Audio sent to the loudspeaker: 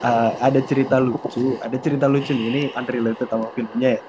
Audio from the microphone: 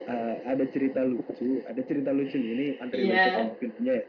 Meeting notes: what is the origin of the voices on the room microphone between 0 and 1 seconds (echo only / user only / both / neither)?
echo only